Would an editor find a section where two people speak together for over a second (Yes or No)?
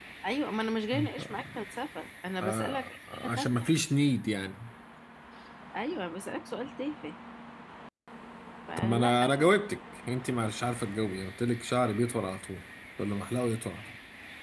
Yes